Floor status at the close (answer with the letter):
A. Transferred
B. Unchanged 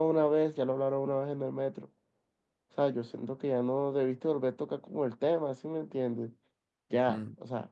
A